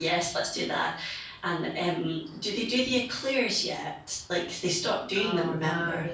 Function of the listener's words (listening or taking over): taking over